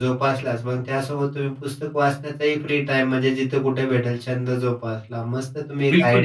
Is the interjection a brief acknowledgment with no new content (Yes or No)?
No